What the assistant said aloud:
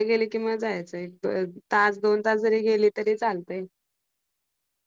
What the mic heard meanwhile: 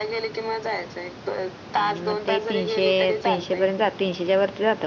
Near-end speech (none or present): present